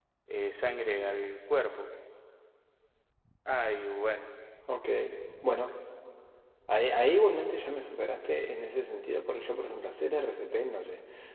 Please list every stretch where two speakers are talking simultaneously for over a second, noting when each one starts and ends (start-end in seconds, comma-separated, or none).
none